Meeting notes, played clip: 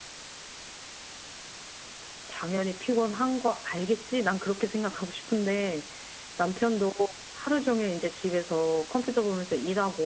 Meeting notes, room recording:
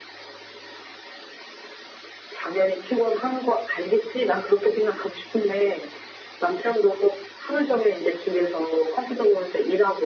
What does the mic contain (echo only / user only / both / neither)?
echo only